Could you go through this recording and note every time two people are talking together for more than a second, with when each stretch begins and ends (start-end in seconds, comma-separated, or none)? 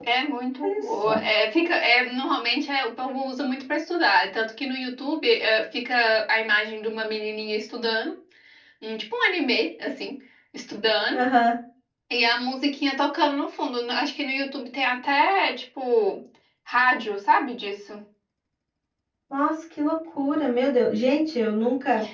none